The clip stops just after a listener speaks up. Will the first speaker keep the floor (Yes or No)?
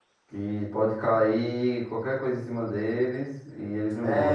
No